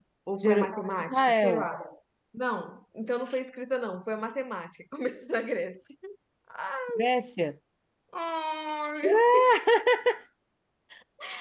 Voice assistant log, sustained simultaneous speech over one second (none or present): present